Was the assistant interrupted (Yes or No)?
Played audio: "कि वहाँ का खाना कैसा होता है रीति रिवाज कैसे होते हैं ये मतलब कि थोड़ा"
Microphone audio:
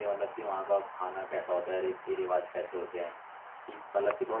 No